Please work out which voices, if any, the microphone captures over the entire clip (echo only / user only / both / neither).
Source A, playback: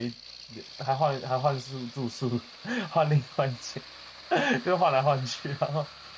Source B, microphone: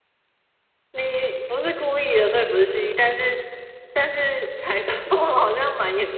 user only